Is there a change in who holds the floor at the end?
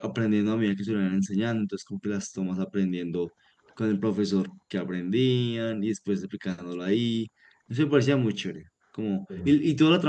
No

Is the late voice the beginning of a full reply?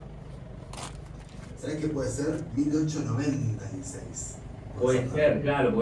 Yes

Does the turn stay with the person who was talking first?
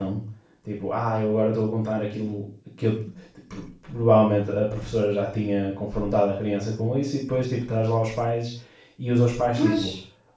Yes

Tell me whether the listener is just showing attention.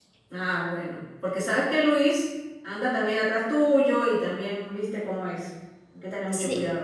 No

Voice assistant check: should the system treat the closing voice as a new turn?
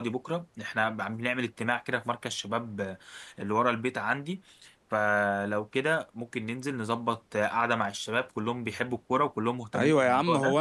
Yes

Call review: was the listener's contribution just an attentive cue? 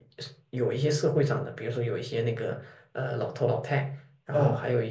Yes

